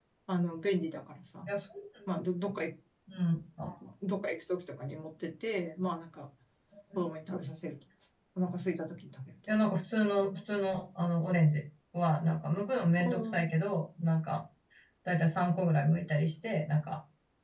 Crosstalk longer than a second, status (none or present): none